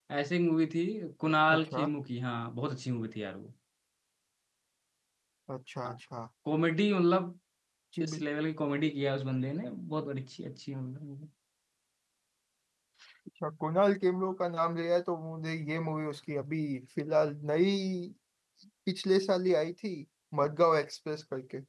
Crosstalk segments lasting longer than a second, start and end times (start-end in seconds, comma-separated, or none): none